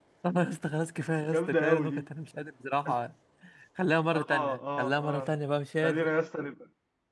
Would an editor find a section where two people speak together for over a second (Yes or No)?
Yes